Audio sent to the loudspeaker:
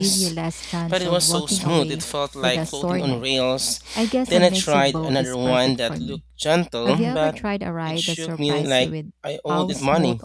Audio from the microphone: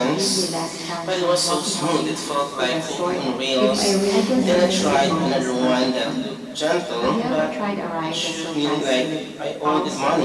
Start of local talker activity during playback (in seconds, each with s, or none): 3.6 s